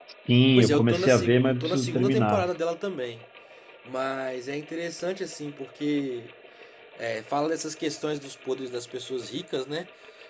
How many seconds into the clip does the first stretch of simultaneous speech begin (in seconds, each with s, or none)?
0.6 s